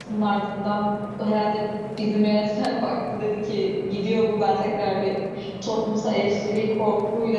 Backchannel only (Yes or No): Yes